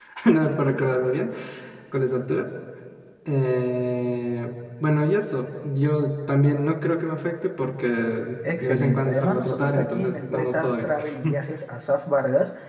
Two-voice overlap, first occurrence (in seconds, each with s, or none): 8.4 s